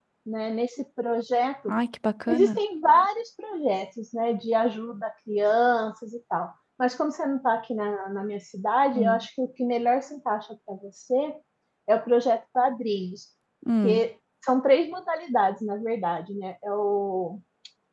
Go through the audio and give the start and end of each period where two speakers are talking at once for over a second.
none

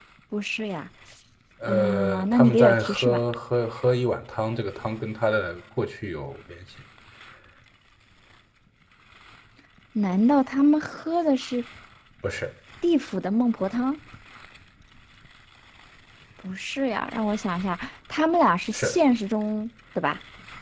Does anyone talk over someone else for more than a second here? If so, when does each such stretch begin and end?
1.7-3.2

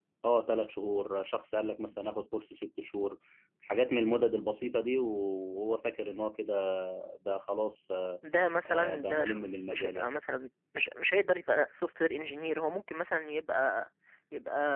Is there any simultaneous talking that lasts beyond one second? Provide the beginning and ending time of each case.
8.7-10.1

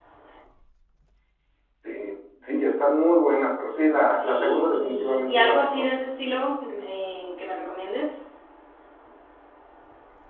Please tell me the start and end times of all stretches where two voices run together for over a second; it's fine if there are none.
4.1-5.9

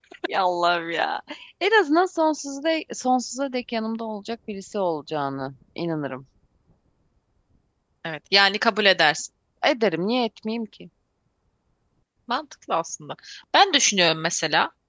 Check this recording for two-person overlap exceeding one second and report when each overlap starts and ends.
none

